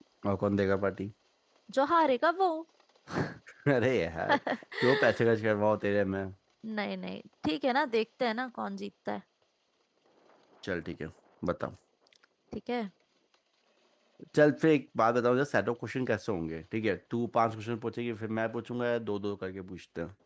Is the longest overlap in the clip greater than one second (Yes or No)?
No